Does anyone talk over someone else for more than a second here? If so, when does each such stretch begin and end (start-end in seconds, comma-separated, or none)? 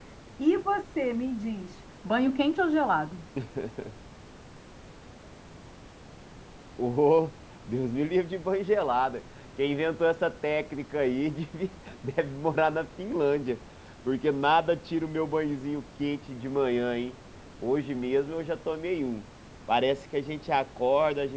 none